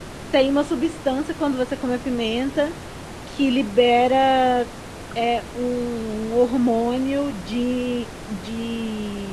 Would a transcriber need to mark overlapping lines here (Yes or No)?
No